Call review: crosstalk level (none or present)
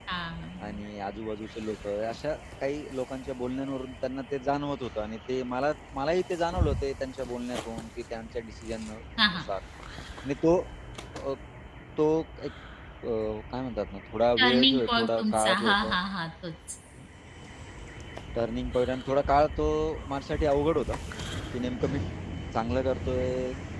present